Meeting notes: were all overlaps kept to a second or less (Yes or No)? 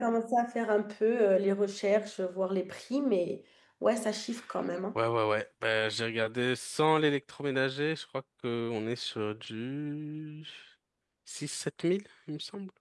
Yes